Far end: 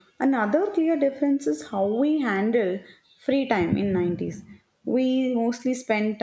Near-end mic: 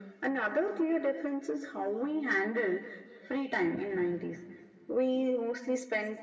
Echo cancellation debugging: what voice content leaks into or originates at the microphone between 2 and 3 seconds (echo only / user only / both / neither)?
echo only